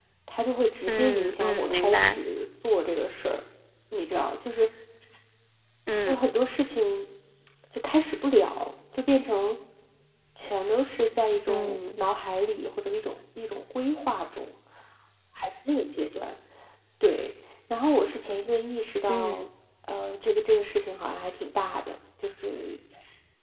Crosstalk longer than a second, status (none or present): present